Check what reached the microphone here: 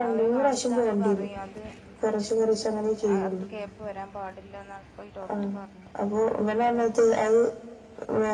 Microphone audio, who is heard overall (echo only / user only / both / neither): both